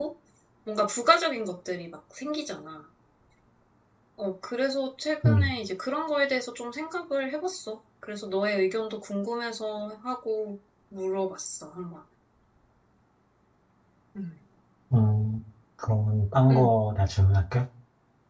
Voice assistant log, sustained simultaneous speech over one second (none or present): none